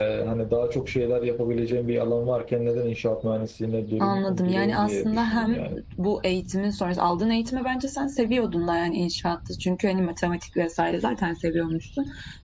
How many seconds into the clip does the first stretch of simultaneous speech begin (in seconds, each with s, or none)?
4.0 s